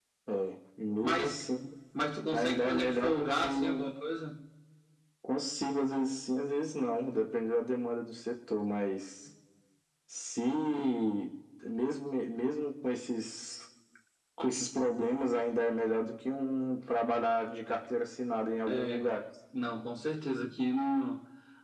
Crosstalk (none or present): present